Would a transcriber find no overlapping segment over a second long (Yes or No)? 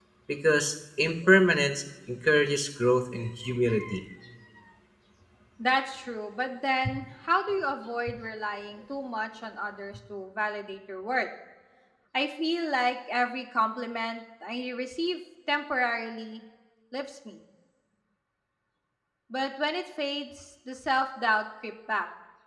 Yes